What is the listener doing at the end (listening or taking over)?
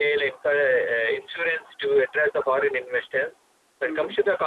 listening